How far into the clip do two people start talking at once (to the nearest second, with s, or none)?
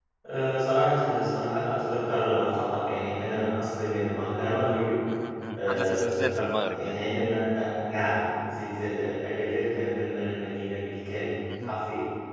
6 s